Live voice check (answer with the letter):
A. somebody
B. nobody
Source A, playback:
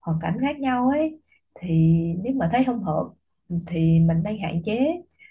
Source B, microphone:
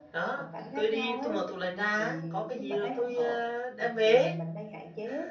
A